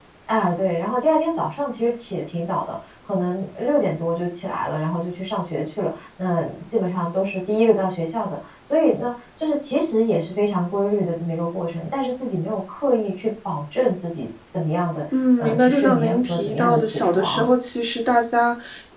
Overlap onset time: 15.4 s

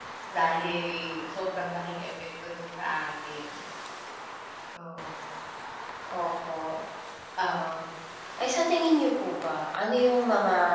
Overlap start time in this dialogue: none

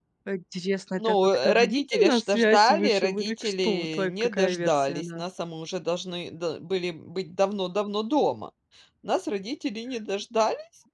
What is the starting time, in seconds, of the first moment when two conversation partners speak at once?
1.0 s

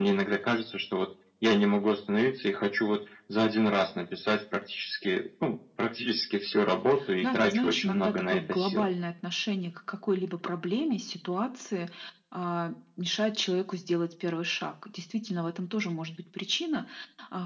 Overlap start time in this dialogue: 7.2 s

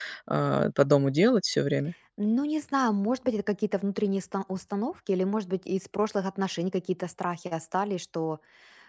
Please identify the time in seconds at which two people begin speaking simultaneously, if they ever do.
none

